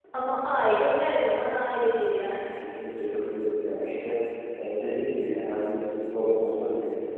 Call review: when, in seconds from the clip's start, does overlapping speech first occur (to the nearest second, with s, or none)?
none